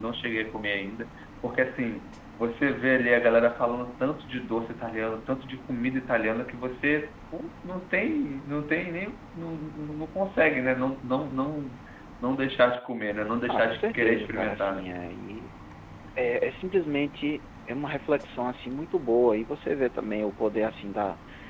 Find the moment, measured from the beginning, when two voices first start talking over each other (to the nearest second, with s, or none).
13 s